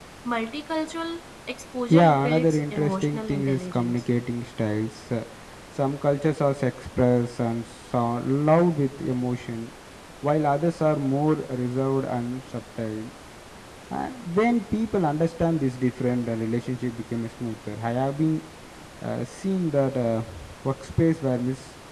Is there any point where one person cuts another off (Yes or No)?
Yes